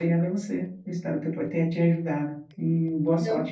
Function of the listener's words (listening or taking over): listening